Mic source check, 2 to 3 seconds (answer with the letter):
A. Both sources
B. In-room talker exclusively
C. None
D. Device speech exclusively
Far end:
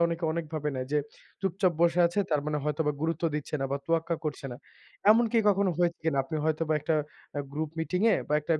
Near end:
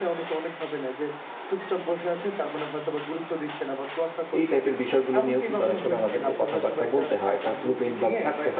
D